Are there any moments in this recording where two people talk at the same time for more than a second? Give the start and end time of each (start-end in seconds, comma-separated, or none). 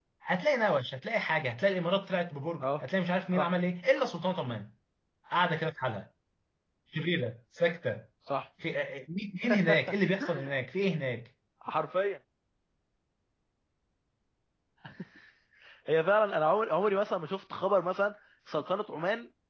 none